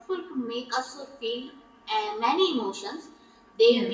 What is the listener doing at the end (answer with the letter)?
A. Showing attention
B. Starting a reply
A